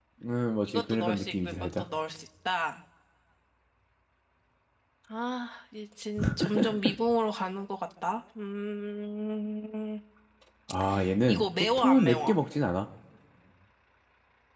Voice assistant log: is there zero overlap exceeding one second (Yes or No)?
No